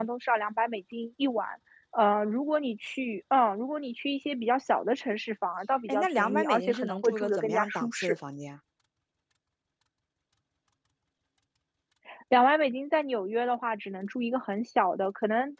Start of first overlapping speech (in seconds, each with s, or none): 5.9 s